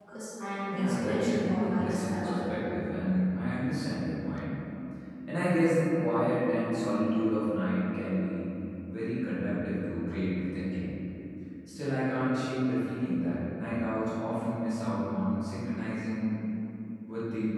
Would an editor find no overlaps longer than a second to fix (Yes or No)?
No